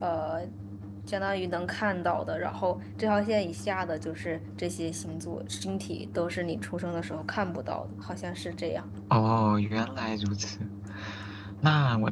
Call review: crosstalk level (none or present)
none